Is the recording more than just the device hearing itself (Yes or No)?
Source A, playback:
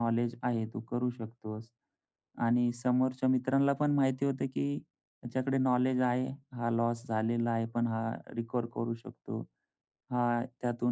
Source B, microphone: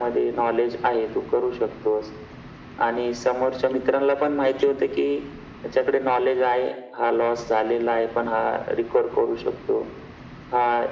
Yes